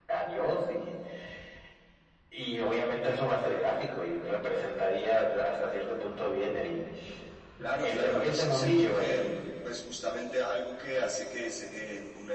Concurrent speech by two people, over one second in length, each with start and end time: 7.8-9.2

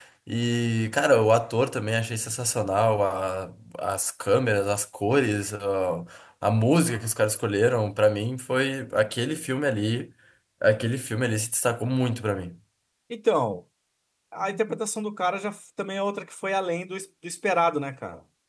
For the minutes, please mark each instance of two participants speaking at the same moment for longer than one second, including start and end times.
none

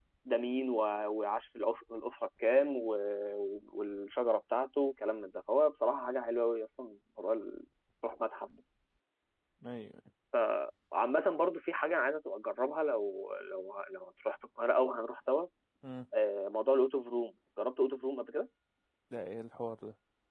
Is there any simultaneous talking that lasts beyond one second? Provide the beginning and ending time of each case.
none

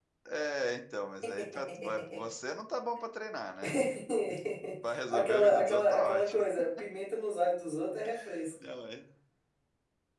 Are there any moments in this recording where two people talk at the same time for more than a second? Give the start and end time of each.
5.1-6.4

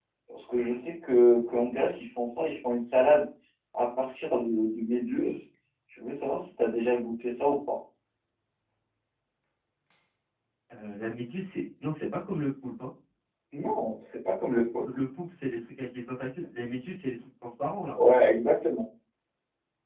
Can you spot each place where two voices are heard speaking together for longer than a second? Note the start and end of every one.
none

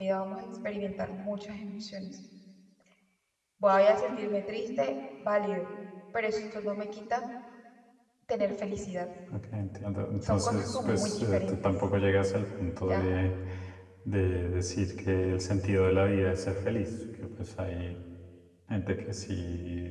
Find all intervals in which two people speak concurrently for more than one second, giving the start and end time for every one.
10.2-11.7

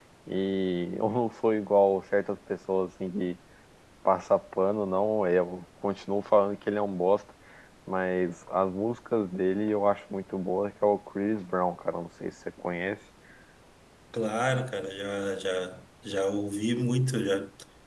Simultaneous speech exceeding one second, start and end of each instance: none

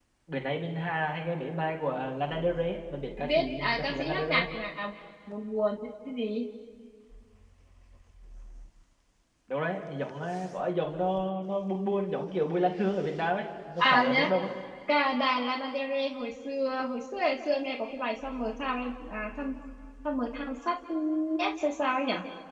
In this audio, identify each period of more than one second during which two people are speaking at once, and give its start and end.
3.2-4.4

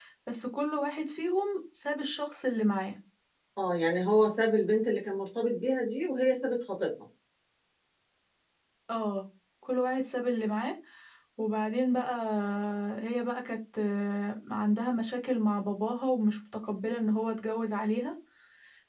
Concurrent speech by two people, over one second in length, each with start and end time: none

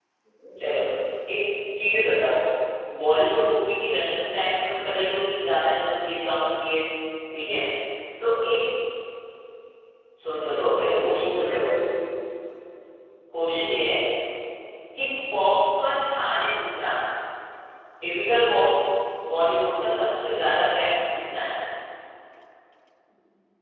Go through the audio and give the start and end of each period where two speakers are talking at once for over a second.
10.3-11.6

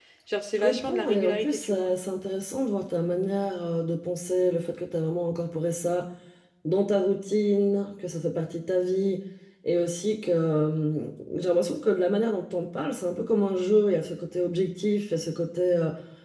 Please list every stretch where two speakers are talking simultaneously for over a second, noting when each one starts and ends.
0.6-1.9

